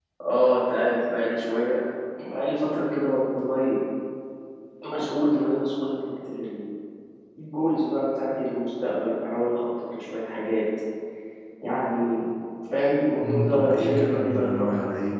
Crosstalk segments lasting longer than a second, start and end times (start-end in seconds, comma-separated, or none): 13.2-14.7